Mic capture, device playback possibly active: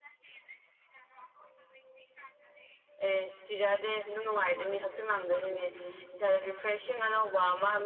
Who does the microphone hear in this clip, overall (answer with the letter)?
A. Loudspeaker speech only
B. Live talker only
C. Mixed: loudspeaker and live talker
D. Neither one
A